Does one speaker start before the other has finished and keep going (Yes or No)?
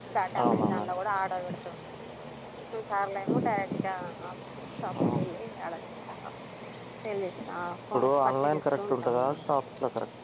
Yes